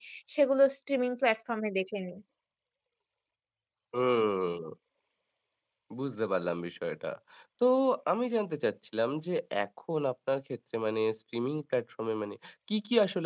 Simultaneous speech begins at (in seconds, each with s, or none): none